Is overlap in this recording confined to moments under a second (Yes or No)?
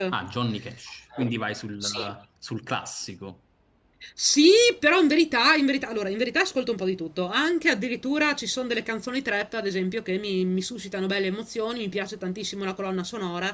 Yes